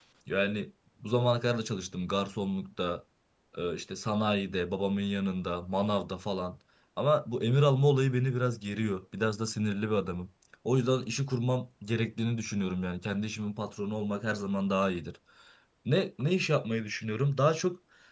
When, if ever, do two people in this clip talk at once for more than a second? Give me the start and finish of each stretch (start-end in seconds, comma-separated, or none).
none